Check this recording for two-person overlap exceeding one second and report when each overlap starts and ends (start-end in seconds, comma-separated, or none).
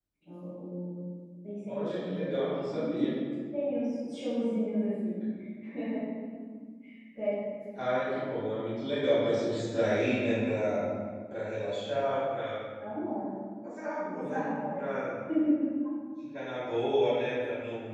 1.7-3.1